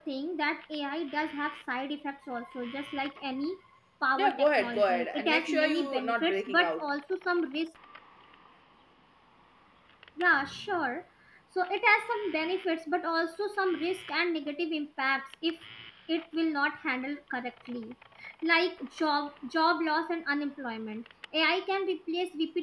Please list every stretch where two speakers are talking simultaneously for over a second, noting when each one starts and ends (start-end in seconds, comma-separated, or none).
4.2-6.9